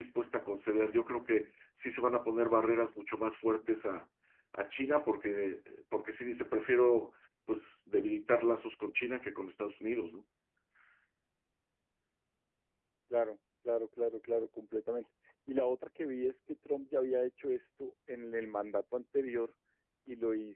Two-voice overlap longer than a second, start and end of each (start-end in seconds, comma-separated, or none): none